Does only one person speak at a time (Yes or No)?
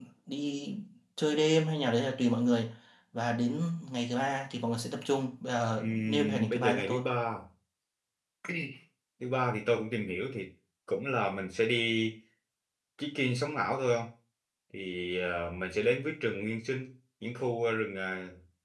No